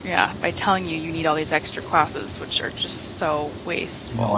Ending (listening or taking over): taking over